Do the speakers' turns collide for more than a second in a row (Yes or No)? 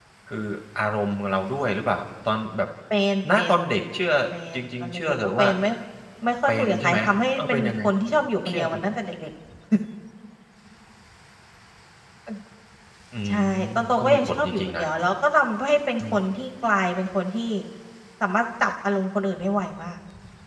Yes